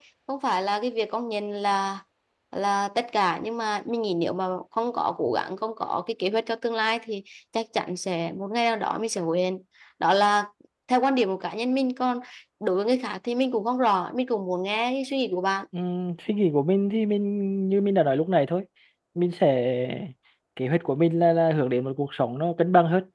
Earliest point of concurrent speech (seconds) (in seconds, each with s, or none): none